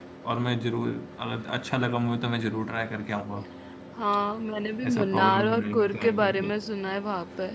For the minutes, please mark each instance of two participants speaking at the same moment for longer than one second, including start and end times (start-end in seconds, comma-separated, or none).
4.8-6.3